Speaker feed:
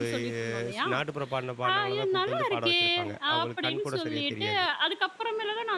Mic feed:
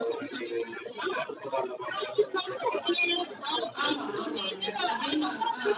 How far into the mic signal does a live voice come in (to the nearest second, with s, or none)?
4 s